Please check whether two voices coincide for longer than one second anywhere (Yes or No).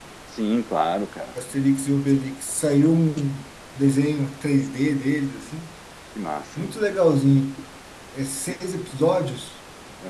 No